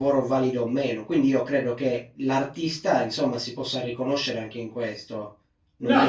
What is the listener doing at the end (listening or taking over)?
taking over